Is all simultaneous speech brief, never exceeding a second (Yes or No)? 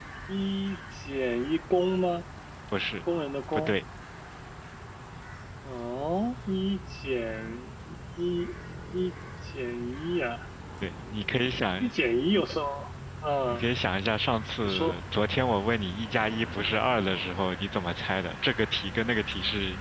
Yes